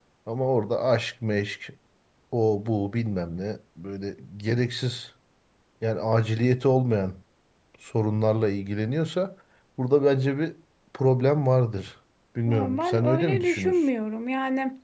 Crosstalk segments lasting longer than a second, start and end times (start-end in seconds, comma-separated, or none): 12.5-13.8